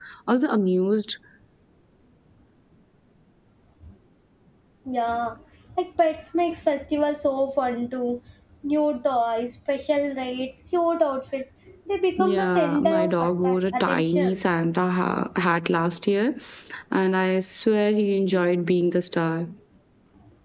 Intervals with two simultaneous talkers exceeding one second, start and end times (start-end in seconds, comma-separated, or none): 12.2-14.4